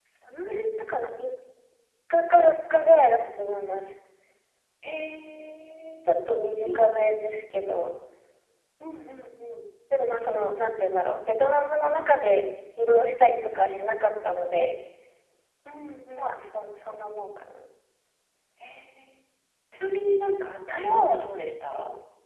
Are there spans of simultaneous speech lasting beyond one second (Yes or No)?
No